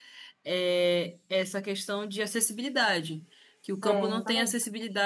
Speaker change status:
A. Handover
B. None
B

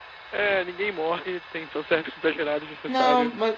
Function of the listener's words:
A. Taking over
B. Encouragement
A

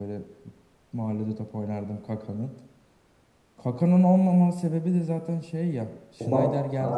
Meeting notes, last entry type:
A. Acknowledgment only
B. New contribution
A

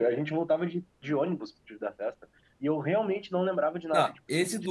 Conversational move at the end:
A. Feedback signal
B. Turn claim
B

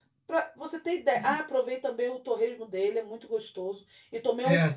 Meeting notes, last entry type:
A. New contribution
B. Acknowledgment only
B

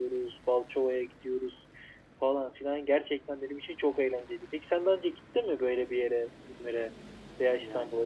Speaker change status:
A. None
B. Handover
A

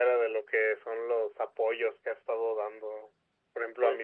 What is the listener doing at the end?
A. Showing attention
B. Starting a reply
A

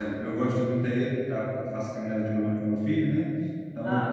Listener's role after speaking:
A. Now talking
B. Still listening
B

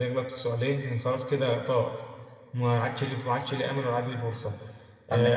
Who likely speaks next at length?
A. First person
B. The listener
A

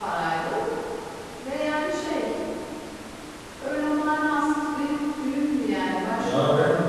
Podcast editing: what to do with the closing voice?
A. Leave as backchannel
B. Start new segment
B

